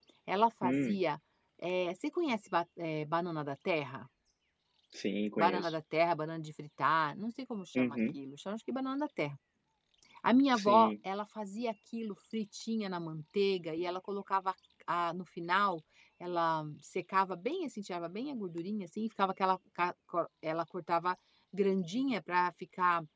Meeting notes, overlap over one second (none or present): none